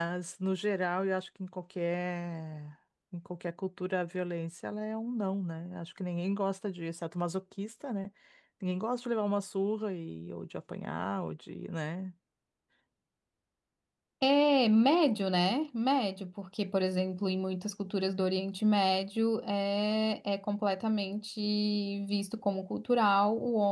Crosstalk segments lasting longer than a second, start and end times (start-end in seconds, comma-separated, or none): none